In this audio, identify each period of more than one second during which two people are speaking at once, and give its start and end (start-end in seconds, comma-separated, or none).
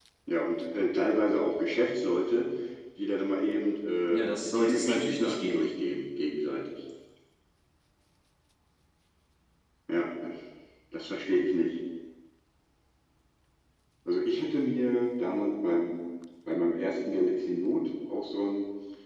4.1-5.7